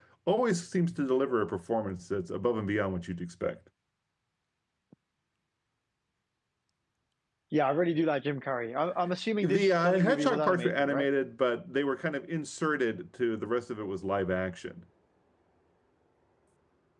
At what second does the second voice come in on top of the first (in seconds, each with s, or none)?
9.4 s